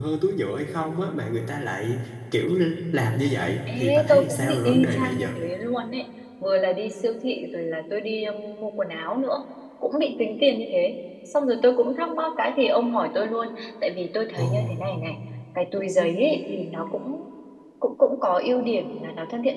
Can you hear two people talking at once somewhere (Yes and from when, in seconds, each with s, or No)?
Yes, from 3.8 s